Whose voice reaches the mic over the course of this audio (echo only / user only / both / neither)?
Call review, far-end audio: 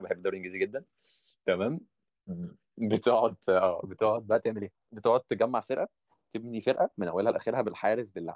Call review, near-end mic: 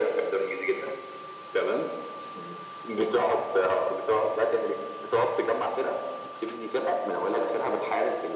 echo only